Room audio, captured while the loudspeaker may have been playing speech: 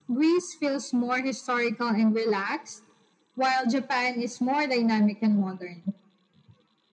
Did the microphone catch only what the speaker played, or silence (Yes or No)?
Yes